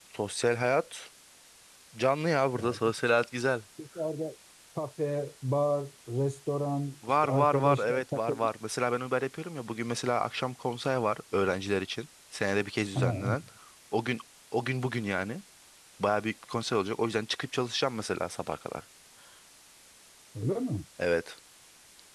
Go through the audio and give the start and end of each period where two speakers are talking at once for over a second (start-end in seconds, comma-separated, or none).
7.2-8.5